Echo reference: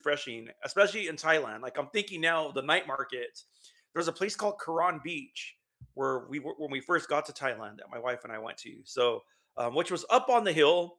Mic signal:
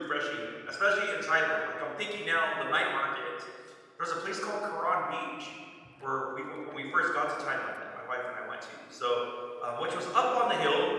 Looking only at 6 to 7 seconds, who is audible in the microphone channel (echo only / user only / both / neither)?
echo only